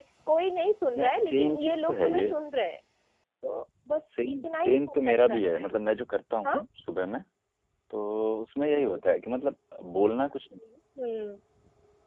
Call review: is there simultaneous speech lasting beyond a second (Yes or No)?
Yes